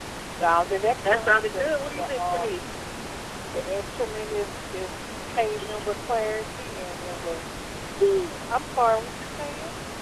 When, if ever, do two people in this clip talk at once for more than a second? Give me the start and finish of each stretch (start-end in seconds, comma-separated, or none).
1.1-2.6